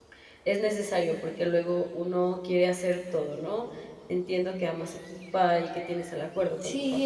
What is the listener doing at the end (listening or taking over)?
taking over